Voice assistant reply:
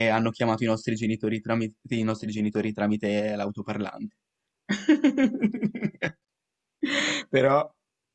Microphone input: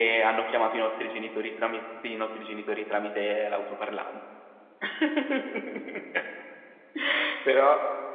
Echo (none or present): present